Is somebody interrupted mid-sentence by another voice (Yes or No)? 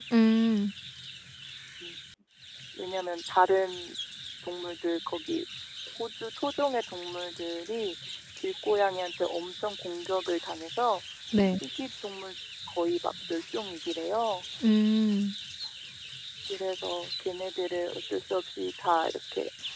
No